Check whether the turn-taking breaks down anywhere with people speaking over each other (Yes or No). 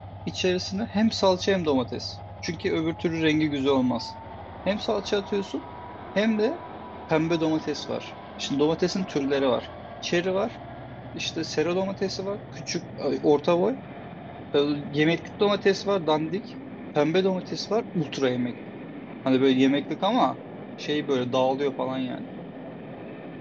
No